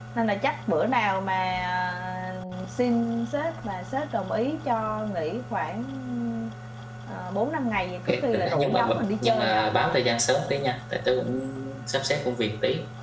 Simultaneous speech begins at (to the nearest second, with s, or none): 8 s